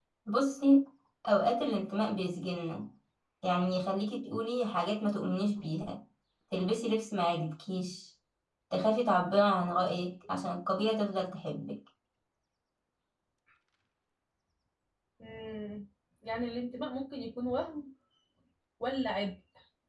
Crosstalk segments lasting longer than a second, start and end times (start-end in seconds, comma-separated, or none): none